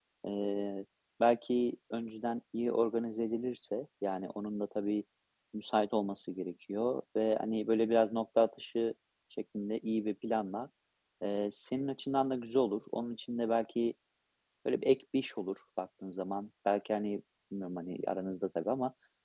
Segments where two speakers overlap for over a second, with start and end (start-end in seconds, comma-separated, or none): none